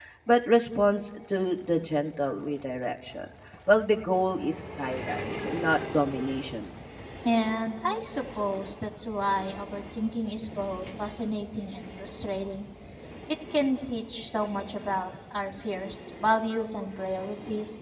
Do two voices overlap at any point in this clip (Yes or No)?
No